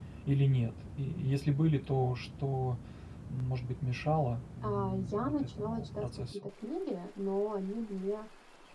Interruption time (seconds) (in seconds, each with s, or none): 4.6 s